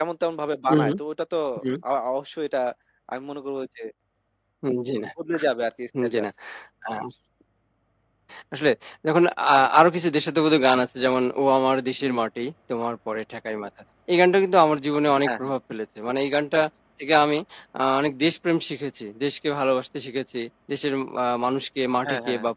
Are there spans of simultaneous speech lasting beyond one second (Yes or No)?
No